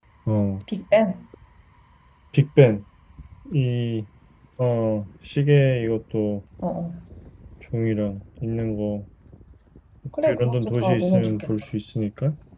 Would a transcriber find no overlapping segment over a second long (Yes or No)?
No